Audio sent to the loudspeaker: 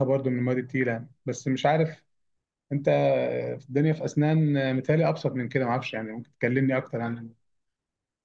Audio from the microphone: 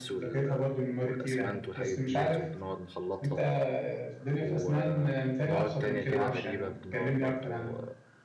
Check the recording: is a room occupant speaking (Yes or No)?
Yes